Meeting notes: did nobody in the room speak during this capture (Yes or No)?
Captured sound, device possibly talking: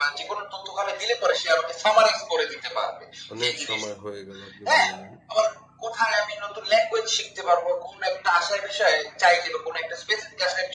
No